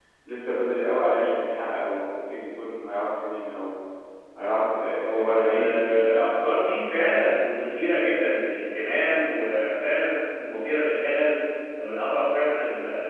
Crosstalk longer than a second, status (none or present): present